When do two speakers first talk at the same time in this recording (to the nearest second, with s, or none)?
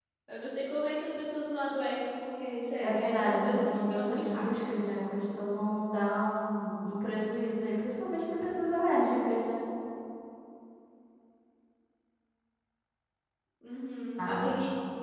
3 s